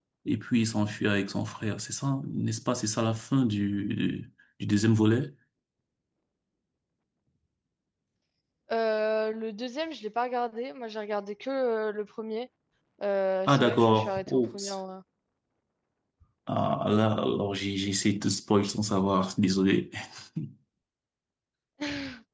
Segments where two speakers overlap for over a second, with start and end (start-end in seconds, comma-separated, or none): 13.5-14.8